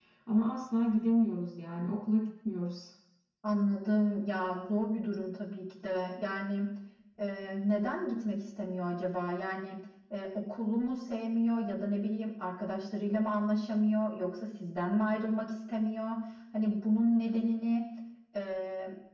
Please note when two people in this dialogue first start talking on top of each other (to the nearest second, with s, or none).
none